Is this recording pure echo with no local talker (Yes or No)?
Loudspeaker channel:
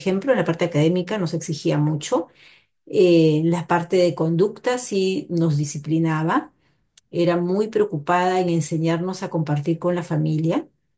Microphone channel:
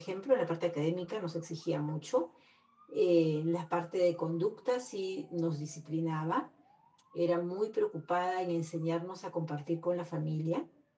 Yes